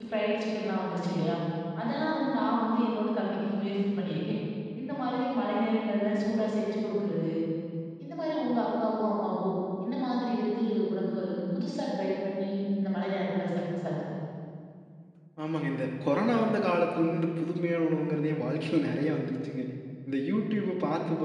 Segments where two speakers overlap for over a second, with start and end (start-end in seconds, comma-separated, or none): none